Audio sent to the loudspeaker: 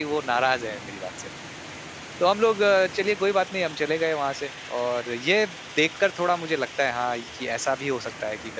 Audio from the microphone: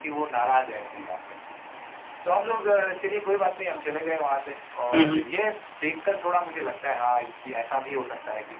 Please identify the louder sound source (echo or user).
user